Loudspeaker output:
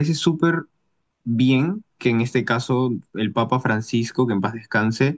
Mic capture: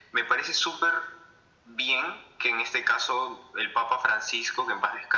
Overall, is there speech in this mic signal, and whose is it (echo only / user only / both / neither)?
echo only